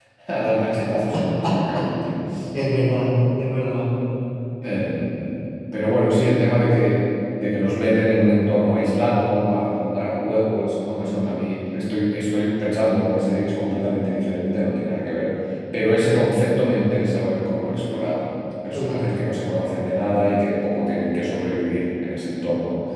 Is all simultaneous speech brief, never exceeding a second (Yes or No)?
Yes